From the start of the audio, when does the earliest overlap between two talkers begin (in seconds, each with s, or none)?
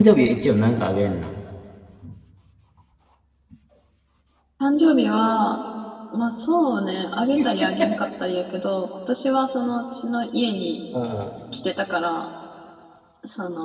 none